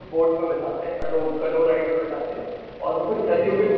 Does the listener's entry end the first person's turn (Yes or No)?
No